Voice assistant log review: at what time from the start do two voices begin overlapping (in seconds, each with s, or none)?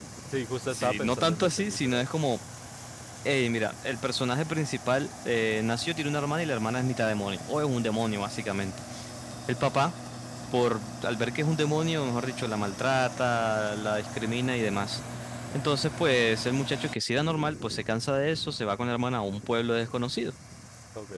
0.7 s